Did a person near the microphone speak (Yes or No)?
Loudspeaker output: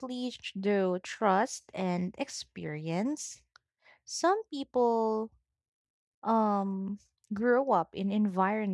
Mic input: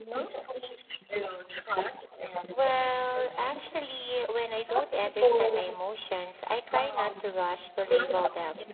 Yes